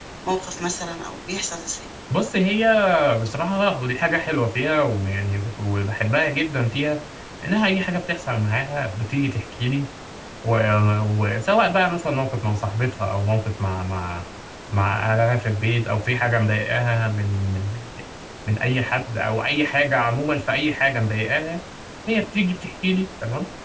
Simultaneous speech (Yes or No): No